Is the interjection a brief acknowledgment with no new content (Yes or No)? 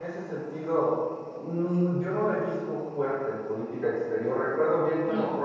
Yes